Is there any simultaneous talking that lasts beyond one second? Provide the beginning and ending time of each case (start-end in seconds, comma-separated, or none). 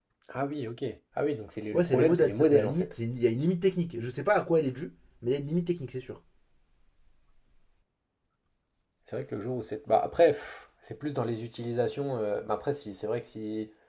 1.7-3.0